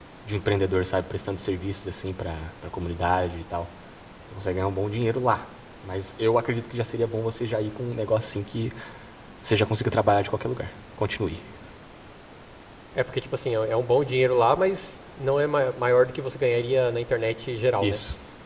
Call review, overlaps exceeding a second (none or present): none